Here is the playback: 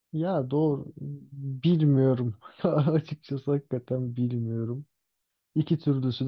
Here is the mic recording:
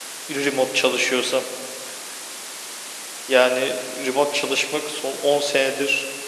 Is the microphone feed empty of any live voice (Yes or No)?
No